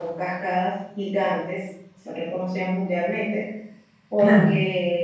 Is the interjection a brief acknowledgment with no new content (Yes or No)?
Yes